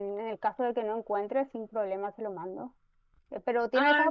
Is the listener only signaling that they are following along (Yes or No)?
Yes